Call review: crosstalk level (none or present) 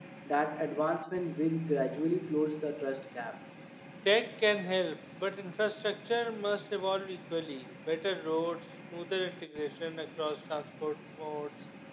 none